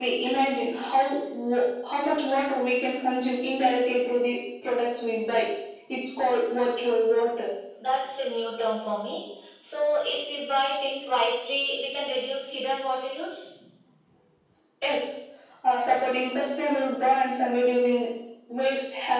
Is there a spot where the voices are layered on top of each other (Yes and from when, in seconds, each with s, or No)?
No